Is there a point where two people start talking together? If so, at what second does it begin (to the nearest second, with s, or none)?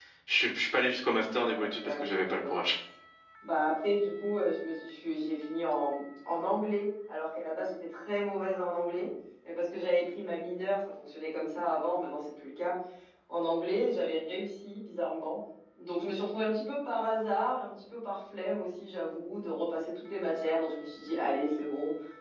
1 s